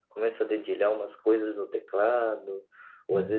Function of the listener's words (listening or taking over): listening